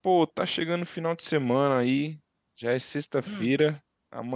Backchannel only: Yes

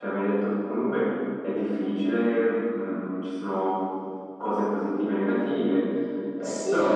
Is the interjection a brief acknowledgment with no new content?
No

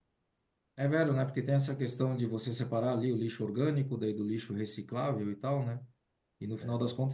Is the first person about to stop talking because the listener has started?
No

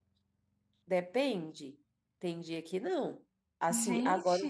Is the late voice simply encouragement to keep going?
Yes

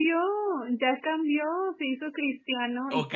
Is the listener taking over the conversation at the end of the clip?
Yes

